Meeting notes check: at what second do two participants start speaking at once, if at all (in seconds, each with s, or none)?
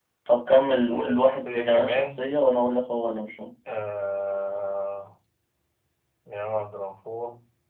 0.7 s